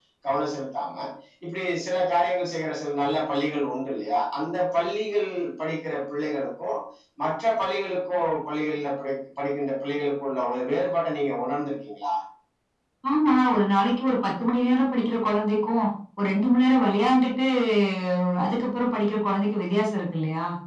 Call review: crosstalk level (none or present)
none